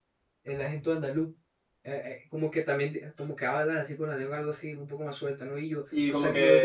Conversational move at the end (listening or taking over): taking over